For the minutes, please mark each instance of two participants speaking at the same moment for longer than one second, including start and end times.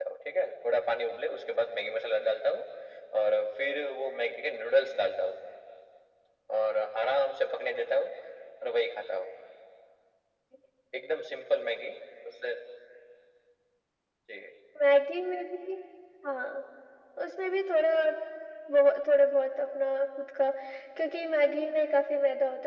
none

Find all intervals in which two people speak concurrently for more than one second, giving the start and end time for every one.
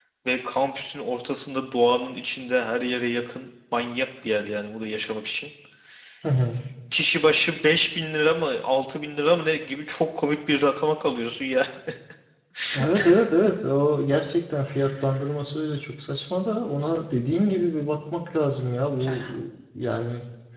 none

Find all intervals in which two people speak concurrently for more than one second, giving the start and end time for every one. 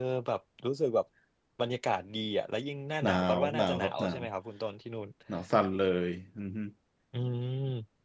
3.0-4.2

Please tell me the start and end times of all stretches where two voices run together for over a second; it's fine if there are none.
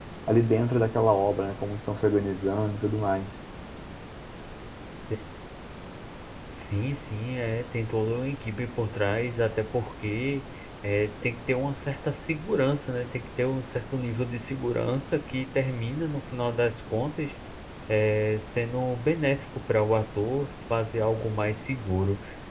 none

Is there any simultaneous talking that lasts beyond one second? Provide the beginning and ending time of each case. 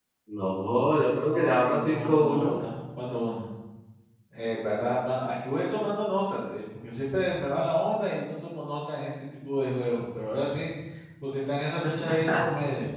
1.2-2.5

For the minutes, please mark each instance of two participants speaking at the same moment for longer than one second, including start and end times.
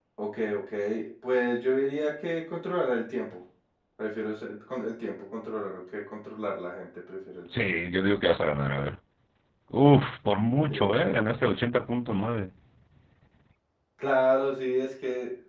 none

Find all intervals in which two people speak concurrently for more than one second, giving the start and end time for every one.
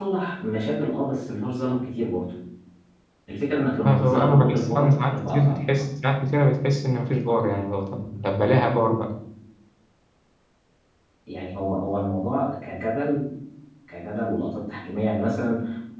3.8-5.6

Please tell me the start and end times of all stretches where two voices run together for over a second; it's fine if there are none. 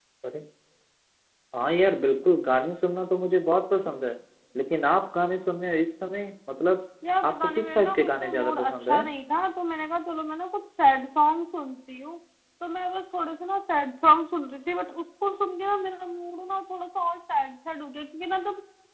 7.2-9.1

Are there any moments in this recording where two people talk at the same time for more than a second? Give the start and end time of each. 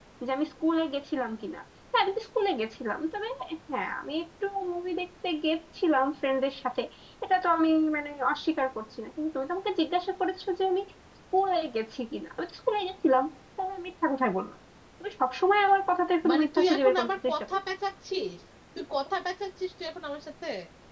16.3-17.5

